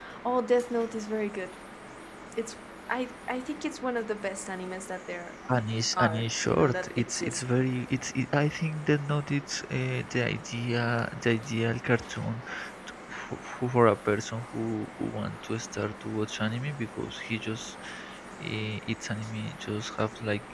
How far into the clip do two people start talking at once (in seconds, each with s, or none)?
5.9 s